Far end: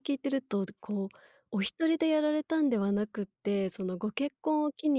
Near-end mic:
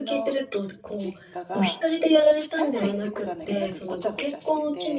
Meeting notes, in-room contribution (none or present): present